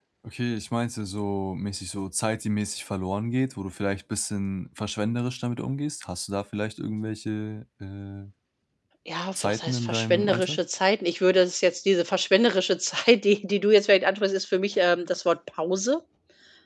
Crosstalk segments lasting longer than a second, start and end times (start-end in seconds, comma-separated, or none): 9.3-10.6